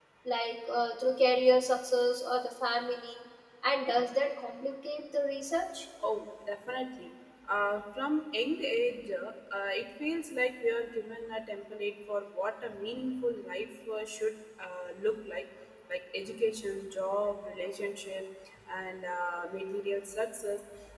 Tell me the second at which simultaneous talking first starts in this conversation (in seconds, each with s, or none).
none